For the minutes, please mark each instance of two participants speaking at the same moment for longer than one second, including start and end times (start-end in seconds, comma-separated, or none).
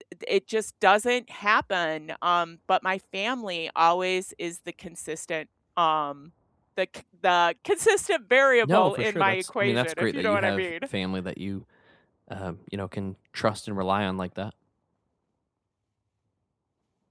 8.6-10.6